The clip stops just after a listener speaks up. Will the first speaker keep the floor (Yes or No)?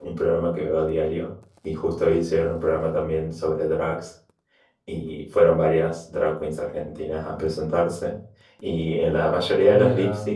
Yes